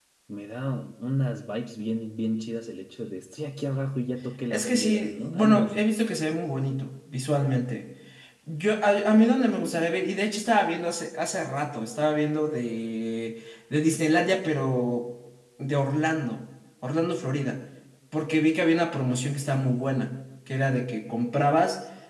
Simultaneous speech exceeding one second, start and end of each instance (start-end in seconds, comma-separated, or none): 4.5-5.8